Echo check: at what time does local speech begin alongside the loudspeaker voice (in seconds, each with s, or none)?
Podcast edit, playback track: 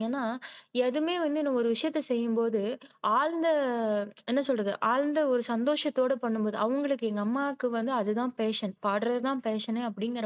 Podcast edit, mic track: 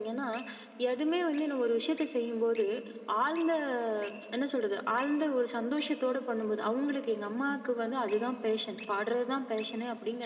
none